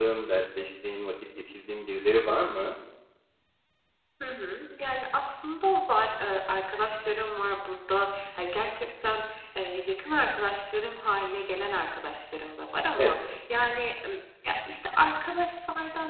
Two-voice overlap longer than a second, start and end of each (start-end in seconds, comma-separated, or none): none